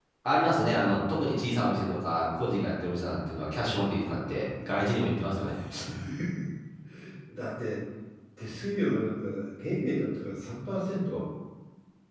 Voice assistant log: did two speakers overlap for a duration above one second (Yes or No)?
No